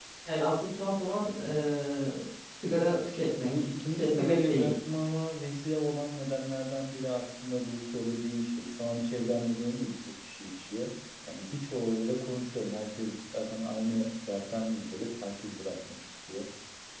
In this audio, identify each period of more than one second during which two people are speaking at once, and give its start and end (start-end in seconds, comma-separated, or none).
3.4-4.7